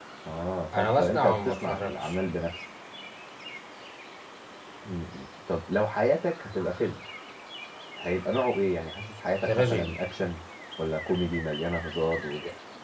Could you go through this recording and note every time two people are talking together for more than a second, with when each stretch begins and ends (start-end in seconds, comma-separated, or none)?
0.8-2.1